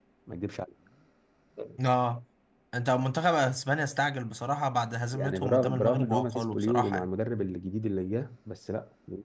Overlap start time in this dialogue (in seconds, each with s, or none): 5.1 s